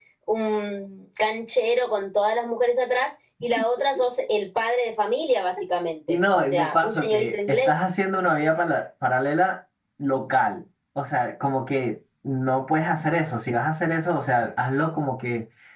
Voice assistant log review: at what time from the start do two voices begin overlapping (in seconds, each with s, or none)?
6.1 s